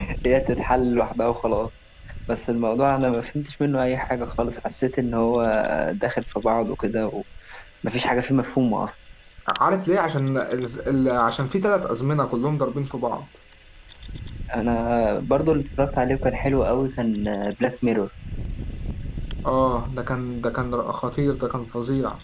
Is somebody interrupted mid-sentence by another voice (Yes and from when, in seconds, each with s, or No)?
No